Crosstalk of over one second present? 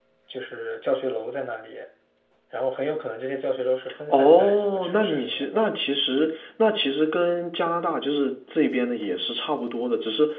Yes, from 4.1 s

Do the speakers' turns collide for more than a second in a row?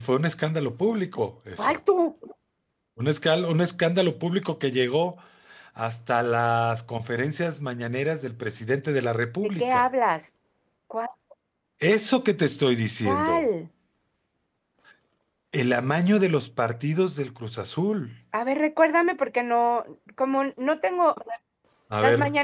No

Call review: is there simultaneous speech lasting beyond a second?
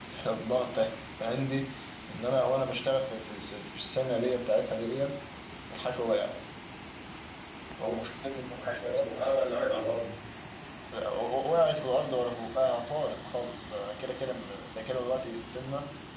Yes, from 7.8 s

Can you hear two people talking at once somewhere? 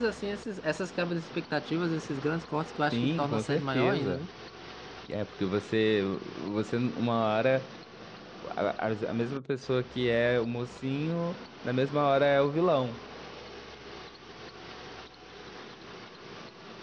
Yes, from 2.9 s

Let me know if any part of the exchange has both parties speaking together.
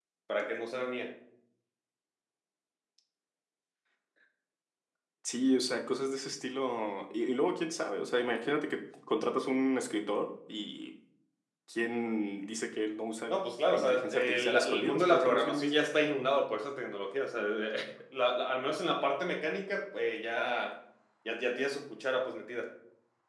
Yes, from 13.7 s

